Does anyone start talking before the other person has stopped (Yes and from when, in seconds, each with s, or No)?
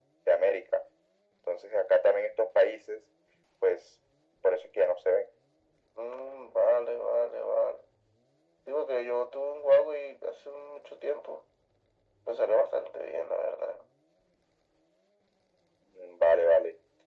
No